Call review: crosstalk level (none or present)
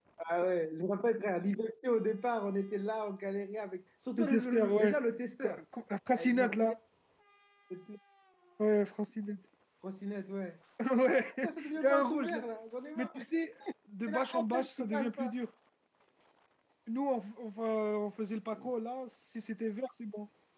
present